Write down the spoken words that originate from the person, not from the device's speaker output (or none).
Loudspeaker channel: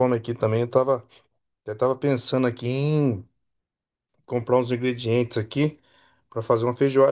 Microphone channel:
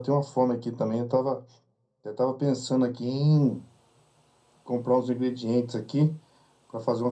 none